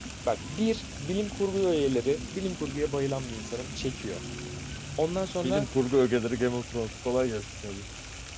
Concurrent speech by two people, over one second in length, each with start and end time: none

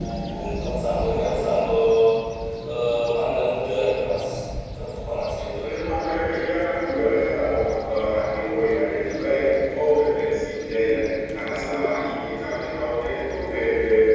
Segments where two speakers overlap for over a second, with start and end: none

